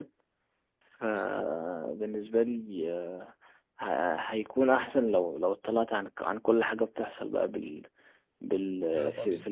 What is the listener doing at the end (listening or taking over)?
listening